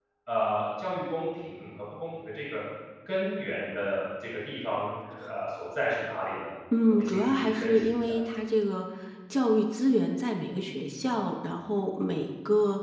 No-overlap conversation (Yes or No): No